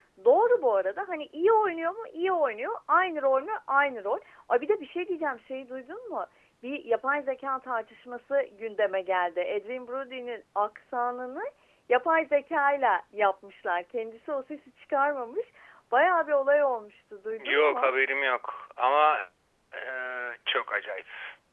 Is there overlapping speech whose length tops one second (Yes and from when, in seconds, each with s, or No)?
No